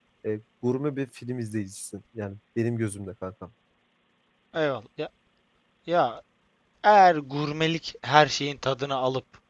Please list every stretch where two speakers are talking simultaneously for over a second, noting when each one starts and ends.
none

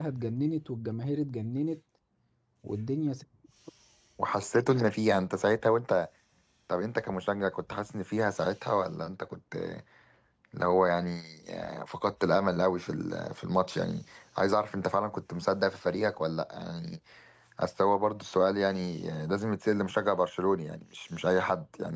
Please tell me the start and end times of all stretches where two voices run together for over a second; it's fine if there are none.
none

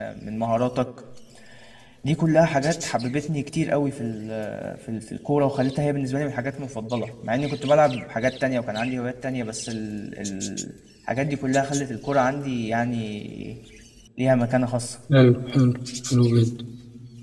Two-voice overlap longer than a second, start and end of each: none

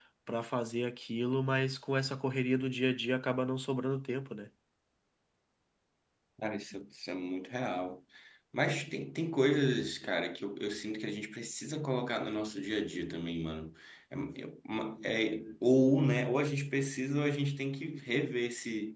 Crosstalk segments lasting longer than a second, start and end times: none

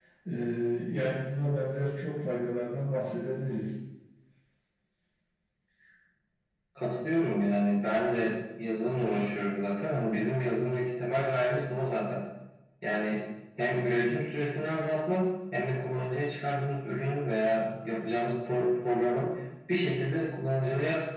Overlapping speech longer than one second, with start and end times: none

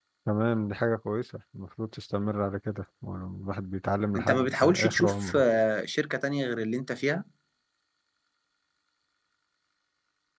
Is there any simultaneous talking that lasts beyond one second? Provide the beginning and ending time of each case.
4.1-5.4

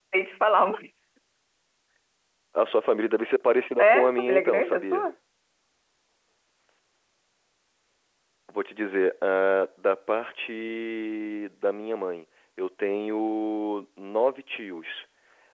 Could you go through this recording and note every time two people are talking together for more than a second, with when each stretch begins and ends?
3.8-5.0

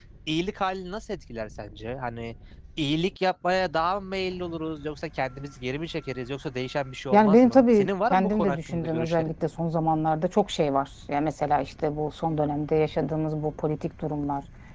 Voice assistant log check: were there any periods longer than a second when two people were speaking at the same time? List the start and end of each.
7.1-9.3

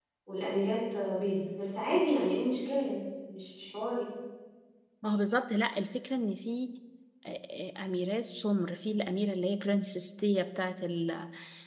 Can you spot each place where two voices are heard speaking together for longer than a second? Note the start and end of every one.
none

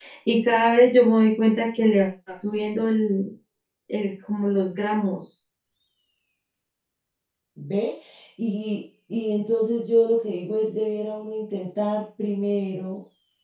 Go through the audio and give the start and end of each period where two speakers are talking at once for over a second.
none

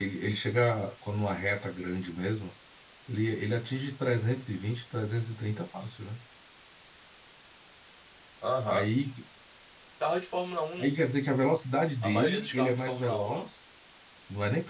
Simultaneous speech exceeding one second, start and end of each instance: 12.0-13.5

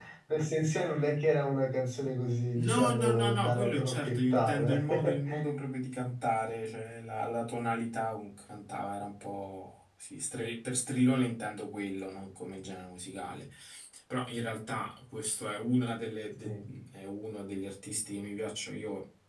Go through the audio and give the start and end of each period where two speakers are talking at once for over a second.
2.5-5.2

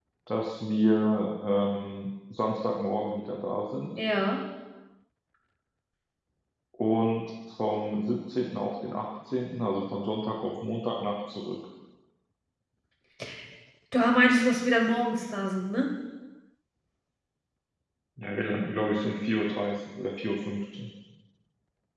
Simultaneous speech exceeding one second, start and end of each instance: none

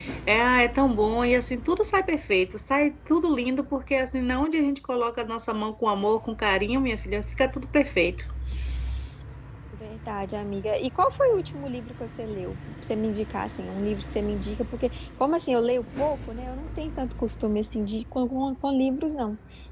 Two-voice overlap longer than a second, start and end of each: none

